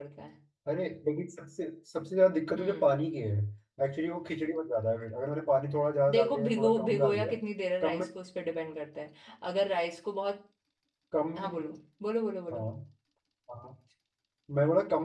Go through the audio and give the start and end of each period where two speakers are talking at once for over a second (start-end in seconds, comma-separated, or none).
6.1-7.3